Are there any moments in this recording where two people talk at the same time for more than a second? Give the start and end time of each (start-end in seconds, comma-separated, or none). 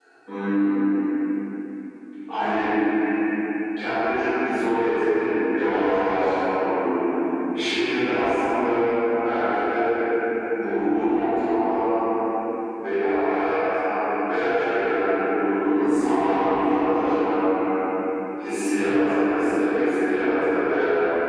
none